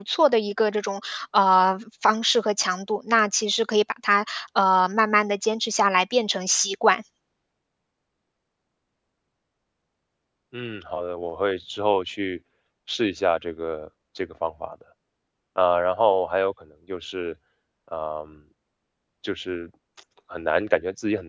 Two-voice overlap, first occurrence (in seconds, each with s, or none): none